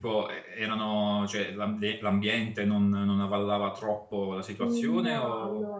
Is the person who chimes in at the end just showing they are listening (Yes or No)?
No